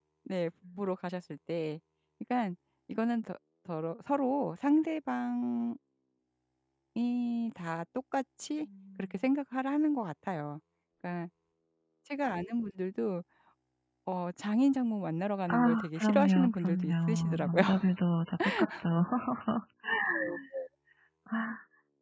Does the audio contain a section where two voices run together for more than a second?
Yes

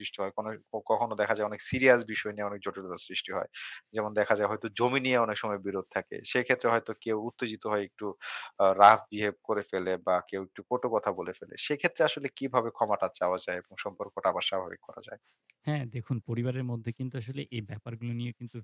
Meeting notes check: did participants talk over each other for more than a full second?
No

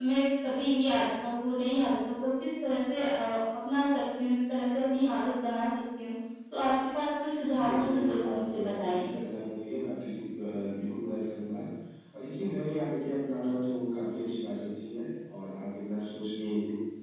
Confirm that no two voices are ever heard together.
No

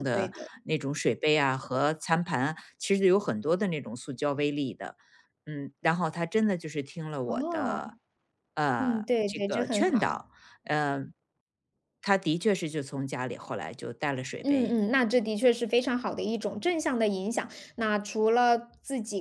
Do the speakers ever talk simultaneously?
Yes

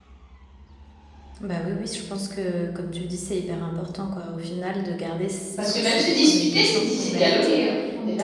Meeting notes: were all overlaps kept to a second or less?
No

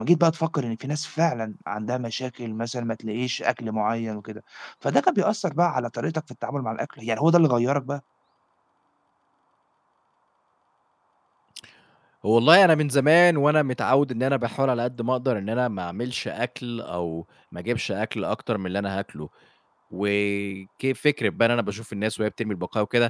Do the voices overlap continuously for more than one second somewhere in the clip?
No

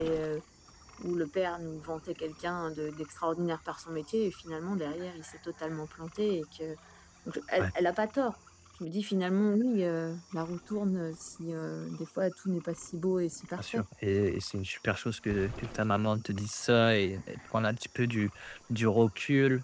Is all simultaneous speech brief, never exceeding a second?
Yes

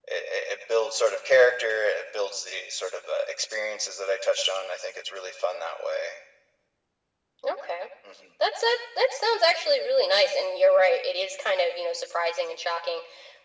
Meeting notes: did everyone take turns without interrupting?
Yes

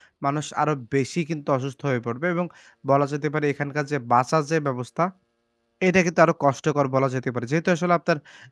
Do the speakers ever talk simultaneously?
No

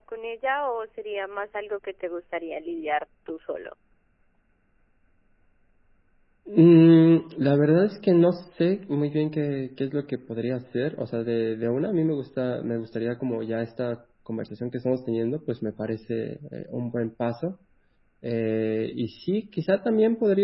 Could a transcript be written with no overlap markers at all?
Yes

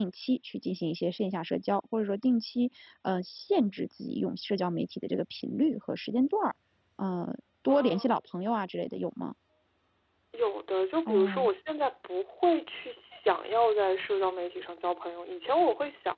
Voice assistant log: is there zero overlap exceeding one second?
Yes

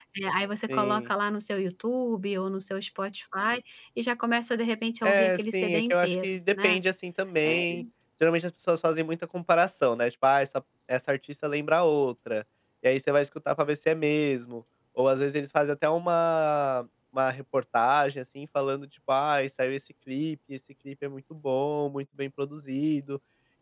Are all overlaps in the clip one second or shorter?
No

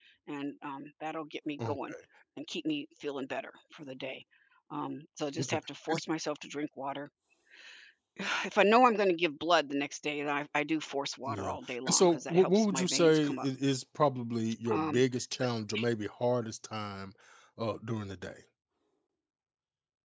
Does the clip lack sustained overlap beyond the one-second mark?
No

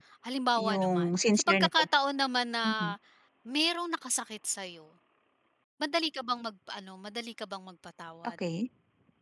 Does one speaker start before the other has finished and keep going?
Yes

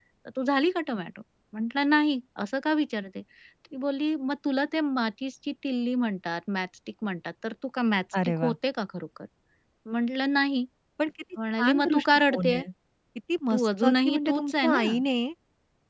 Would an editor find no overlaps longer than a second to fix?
No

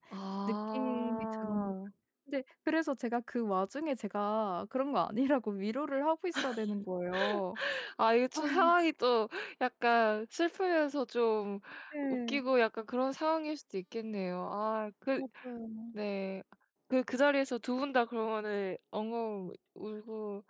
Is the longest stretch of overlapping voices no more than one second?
No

